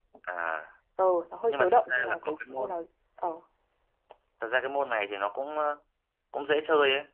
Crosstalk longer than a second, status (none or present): present